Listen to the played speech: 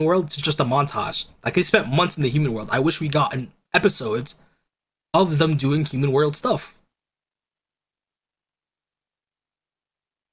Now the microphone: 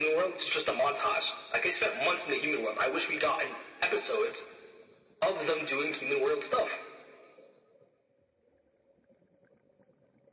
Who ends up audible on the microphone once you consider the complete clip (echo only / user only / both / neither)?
echo only